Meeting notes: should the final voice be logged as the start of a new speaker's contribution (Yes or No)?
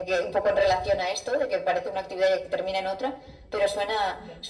Yes